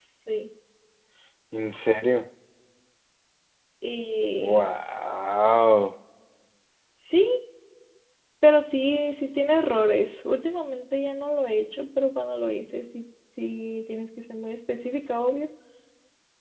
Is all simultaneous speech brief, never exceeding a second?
Yes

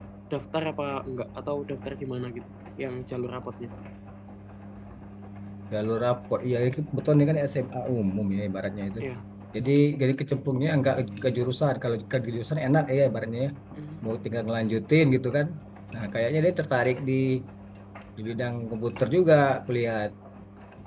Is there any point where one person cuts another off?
No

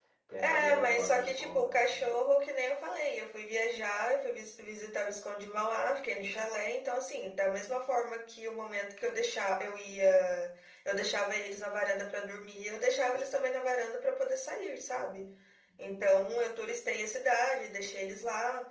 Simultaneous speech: Yes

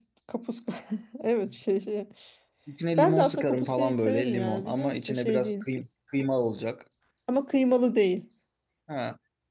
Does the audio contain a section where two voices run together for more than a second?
Yes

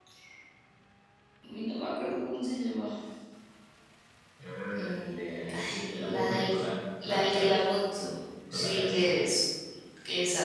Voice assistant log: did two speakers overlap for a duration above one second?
Yes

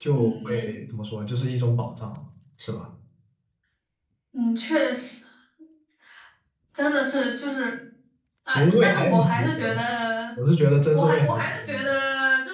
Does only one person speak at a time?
No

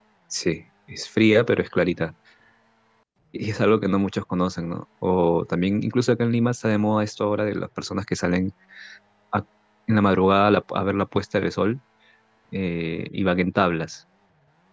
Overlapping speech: No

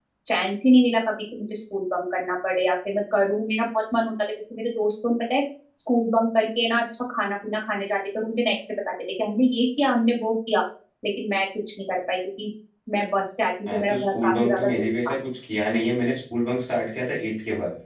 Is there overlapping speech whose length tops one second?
Yes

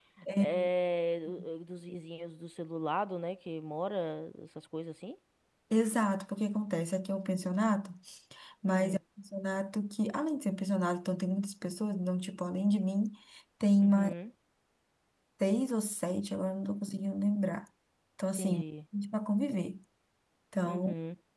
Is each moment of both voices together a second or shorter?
Yes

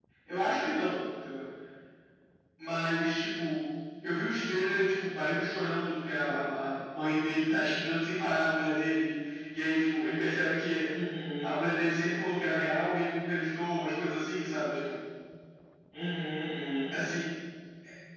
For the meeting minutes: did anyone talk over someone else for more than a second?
No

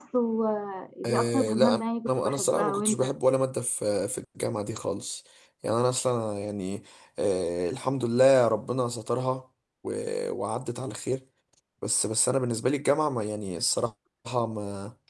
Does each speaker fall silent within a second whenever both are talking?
No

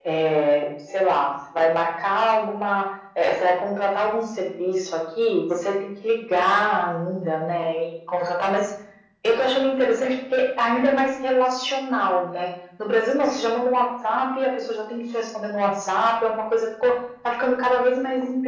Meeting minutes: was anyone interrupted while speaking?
No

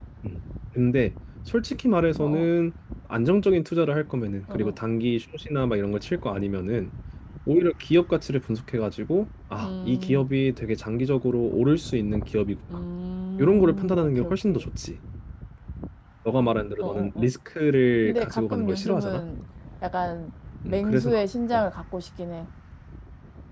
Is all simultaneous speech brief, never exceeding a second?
No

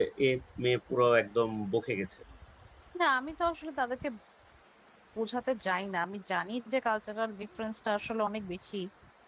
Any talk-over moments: No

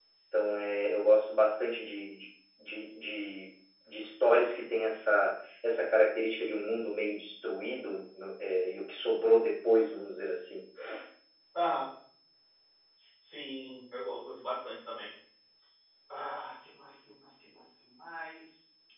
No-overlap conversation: Yes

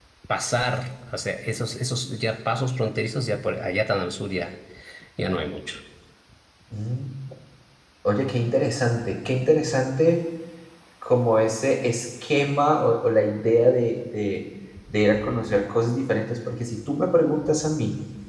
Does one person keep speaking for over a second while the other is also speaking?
No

